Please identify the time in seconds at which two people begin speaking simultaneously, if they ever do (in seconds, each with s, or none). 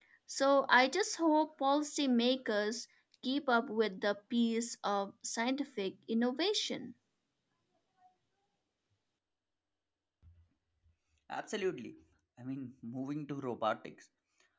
none